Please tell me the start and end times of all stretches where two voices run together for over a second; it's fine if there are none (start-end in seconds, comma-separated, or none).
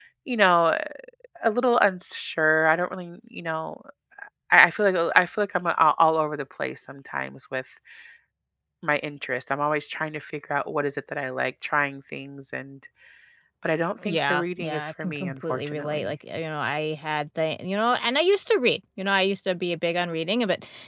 14.1-16.1